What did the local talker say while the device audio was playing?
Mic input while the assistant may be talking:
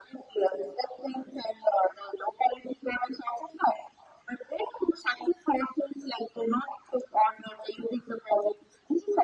none

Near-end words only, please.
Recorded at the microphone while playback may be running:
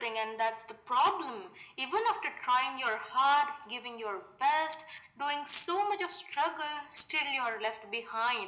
none

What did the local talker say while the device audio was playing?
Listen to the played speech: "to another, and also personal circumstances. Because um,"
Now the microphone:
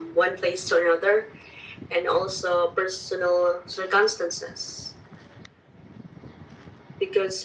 none

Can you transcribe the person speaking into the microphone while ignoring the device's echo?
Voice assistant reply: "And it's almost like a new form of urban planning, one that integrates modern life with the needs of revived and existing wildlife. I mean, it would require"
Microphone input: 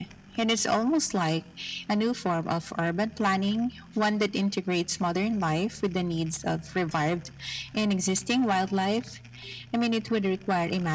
none

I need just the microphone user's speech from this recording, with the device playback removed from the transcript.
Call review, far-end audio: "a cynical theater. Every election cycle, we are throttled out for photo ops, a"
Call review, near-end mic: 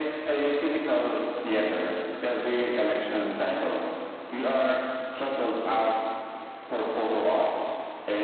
none

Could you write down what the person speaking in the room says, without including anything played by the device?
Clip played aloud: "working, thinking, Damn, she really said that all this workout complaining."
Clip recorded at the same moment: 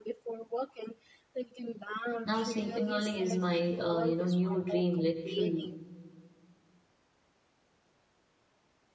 Now sleeping early is my, uh, you know, new dream, literally.

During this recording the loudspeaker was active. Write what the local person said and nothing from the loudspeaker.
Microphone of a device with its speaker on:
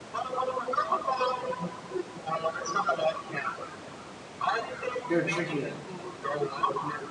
They're trickier.

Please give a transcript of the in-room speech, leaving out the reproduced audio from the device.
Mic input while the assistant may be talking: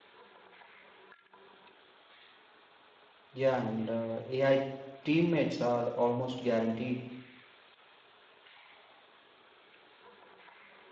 Yeah, and uh, AI teammates are almost guaranteed.

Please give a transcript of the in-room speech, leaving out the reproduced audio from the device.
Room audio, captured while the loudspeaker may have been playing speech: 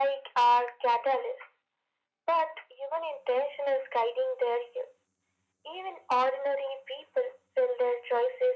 none

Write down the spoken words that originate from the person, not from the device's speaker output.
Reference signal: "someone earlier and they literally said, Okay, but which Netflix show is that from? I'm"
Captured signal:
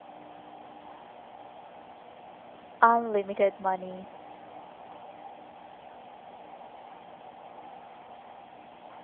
Unlimited money.

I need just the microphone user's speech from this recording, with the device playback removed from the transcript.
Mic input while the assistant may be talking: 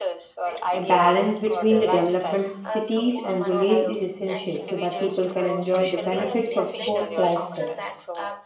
a balance between the development of cities and village is essential so that people can enjoy the benefits of both lifestyles.

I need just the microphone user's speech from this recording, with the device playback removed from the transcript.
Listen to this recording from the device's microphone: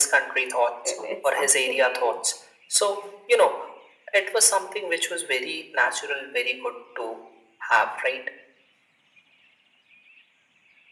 i- it's actually

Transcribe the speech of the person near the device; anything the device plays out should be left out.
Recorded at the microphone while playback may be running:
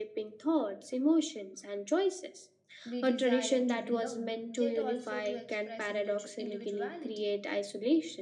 We desire to belong, yet also to express individu- individuality.

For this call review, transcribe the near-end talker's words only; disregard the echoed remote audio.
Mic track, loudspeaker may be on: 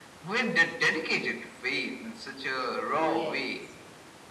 yes,

